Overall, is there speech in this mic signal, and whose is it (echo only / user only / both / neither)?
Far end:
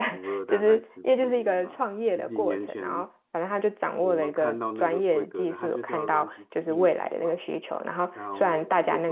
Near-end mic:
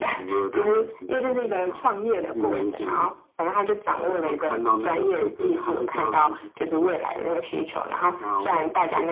echo only